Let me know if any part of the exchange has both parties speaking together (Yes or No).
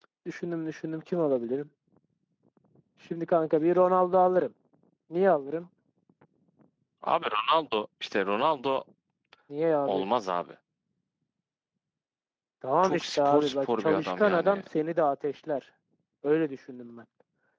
Yes